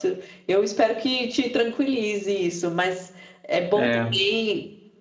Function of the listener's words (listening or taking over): listening